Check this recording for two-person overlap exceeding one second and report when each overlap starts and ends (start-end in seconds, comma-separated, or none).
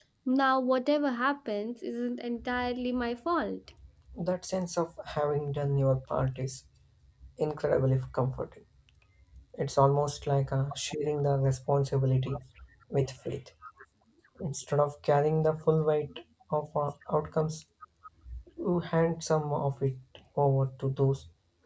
none